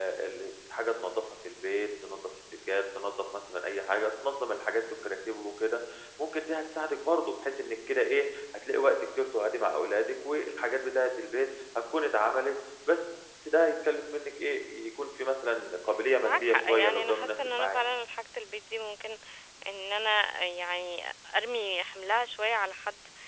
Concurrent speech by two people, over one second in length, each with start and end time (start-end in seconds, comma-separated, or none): 16.2-17.8